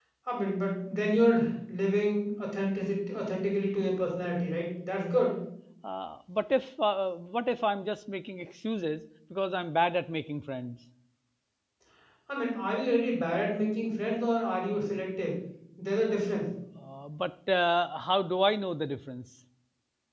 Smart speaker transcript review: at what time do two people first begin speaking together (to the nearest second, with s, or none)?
none